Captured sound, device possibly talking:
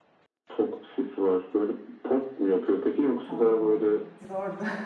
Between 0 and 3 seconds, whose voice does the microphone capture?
echo only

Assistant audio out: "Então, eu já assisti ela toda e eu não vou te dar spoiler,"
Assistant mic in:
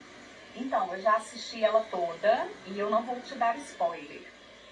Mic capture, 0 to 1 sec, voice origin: echo only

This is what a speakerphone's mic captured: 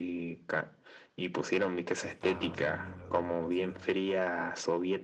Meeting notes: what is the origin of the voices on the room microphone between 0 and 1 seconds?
echo only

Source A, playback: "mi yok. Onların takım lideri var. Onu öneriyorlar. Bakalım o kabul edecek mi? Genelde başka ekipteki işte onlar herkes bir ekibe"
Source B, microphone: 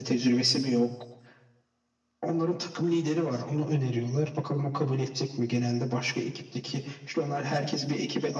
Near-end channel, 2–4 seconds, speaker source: both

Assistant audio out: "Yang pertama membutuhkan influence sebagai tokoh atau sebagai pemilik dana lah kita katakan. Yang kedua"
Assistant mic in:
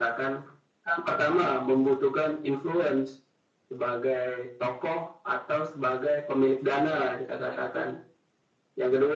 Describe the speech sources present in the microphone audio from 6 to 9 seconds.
both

